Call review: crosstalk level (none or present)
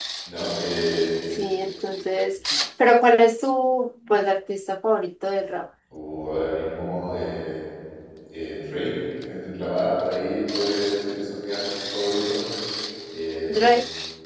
none